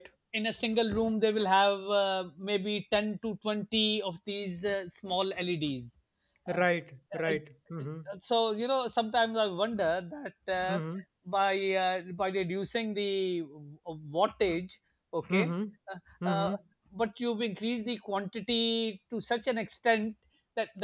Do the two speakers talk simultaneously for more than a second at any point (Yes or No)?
No